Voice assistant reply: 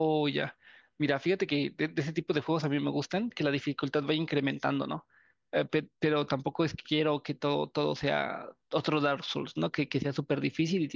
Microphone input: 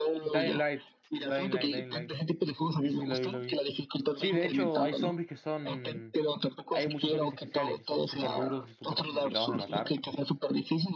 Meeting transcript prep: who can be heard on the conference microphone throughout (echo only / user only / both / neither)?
both